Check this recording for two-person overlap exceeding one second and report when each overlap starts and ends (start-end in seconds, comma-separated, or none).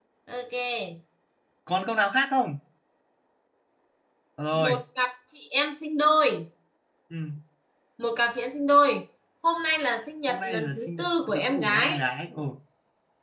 10.3-12.0